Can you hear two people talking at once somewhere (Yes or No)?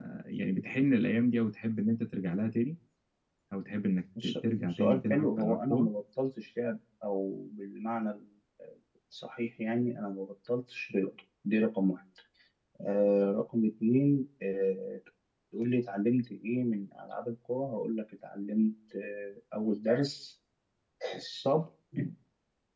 Yes